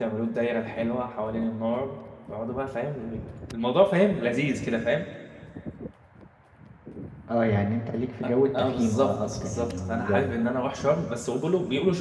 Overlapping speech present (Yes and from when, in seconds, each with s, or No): Yes, from 8.2 s